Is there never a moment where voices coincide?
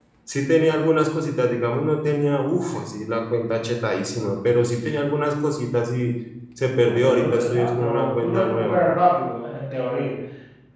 No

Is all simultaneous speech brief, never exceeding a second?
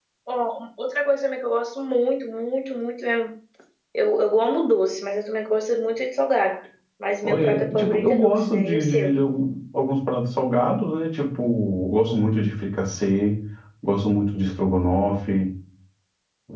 No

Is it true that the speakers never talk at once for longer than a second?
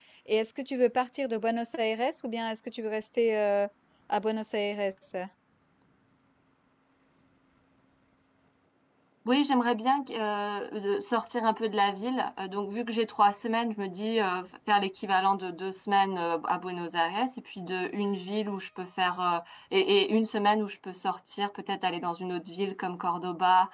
Yes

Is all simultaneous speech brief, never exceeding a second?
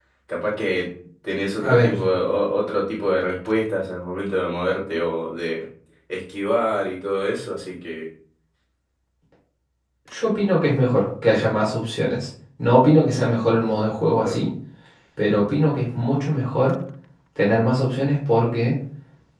Yes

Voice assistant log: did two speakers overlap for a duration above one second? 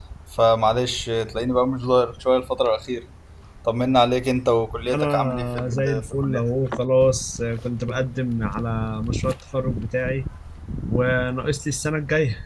Yes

